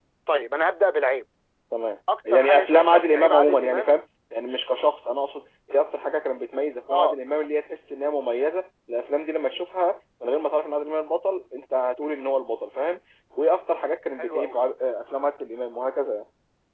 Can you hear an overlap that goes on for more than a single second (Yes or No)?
Yes